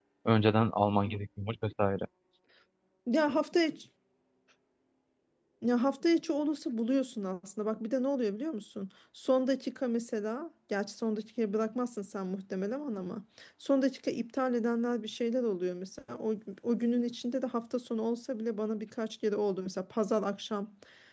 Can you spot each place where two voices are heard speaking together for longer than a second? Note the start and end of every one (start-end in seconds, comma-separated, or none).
none